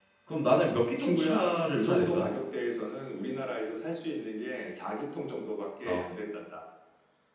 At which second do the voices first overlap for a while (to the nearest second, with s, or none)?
1 s